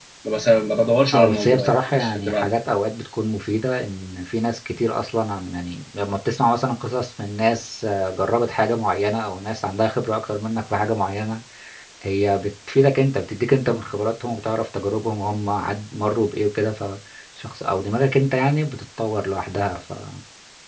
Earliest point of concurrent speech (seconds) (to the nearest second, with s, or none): 1 s